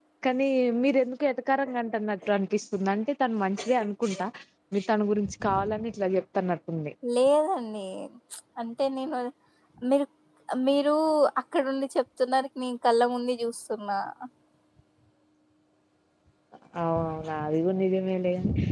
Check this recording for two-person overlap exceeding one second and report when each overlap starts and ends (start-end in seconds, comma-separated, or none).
none